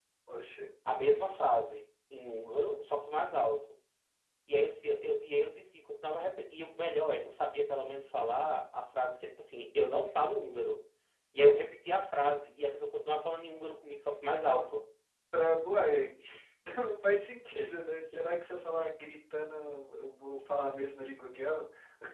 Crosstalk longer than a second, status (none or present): none